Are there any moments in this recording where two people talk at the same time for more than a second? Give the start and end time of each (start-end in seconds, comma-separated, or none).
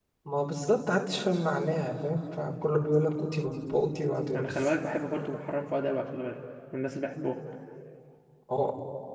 none